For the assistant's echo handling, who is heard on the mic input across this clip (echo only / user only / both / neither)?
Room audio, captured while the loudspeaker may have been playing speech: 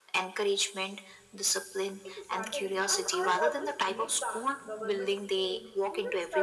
both